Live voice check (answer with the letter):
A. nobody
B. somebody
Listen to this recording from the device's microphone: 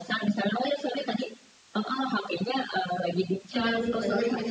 B